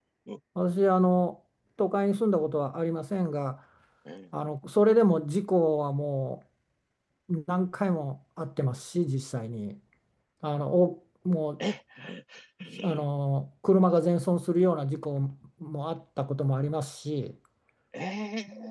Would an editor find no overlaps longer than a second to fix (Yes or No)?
Yes